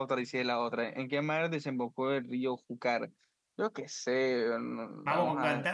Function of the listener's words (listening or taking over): taking over